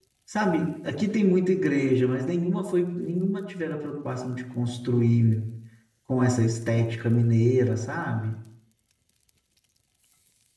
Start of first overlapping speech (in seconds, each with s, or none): none